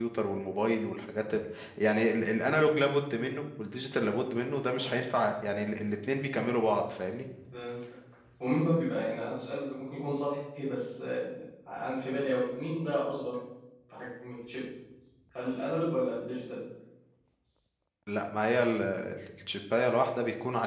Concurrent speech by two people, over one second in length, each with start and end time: none

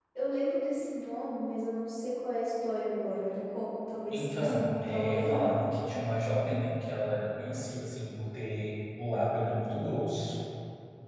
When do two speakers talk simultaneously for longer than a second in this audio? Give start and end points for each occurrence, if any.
4.1-5.5

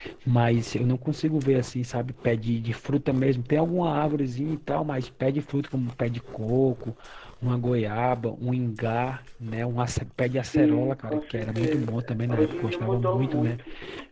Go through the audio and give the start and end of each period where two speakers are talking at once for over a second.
10.4-11.9, 12.4-13.6

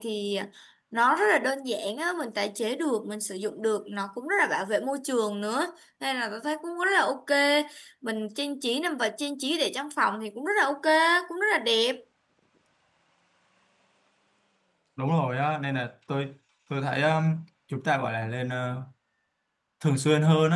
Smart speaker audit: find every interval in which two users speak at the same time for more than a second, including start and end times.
none

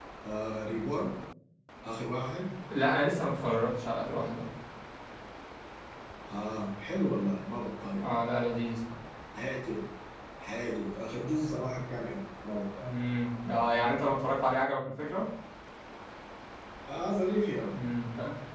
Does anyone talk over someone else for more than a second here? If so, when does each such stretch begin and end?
none

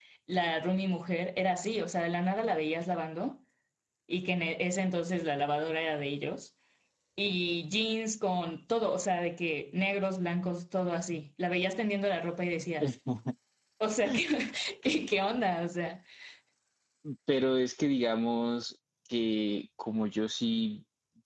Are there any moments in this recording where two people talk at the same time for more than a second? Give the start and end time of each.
none

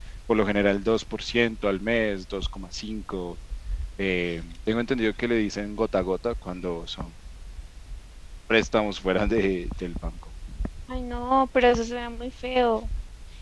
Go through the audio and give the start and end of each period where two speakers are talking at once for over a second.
none

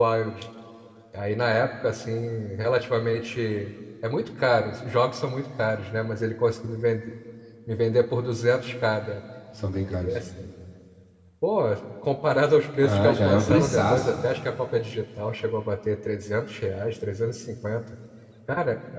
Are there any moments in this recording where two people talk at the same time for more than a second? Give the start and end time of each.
12.8-14.2

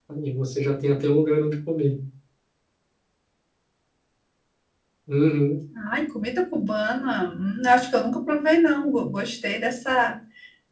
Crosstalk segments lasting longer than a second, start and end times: none

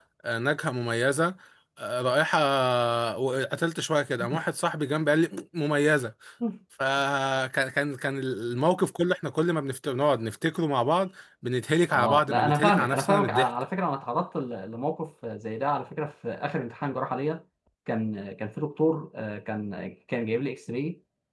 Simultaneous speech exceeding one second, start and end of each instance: 11.9-13.5

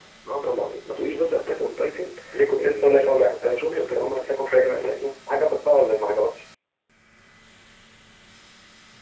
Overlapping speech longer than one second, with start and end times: 2.6-5.1

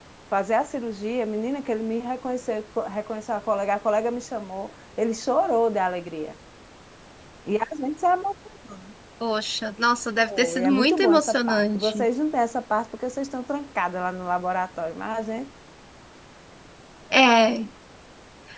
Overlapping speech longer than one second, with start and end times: 10.6-12.0

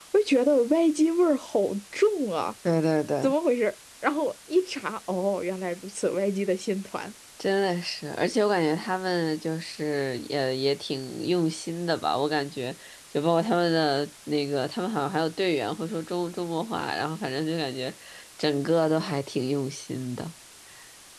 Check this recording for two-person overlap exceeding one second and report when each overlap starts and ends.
none

